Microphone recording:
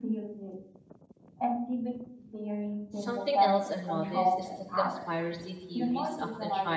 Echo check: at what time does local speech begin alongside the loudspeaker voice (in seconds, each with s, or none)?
3.0 s